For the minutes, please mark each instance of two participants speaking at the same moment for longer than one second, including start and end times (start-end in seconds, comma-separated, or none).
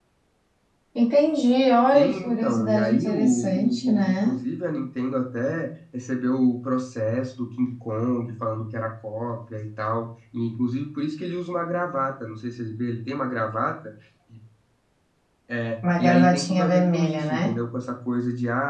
1.9-4.3, 16.0-17.5